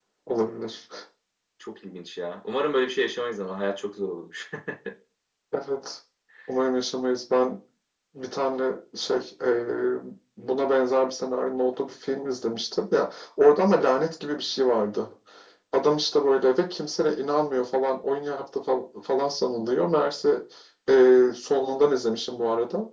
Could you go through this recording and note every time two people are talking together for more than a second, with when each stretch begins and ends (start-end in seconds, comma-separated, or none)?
none